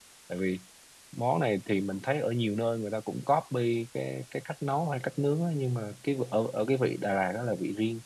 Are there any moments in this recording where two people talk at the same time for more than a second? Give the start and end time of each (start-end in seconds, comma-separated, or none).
none